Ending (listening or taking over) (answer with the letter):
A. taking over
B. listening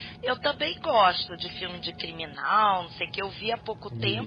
B